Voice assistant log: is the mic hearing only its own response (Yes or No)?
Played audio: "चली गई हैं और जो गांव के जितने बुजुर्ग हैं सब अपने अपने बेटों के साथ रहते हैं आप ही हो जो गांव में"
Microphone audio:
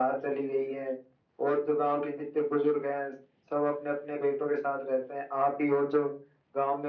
Yes